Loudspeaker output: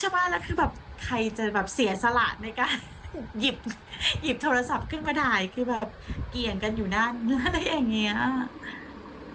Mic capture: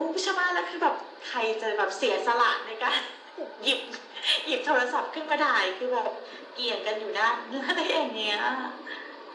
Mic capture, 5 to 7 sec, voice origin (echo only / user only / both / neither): echo only